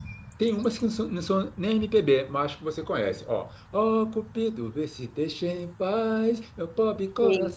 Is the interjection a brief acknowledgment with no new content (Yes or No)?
Yes